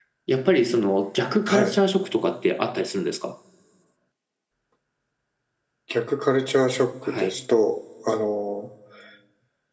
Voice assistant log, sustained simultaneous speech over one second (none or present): none